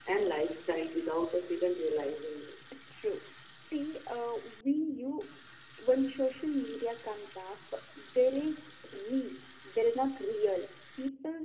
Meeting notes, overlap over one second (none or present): none